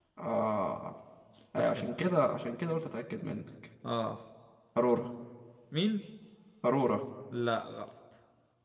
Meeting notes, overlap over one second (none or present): none